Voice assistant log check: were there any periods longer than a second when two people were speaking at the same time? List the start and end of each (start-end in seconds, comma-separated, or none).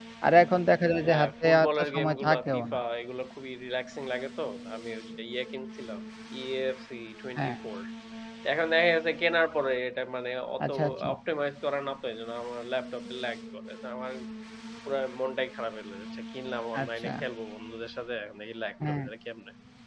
1.0-2.8